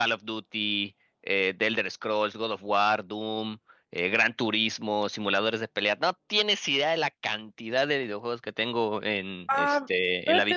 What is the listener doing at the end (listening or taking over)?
taking over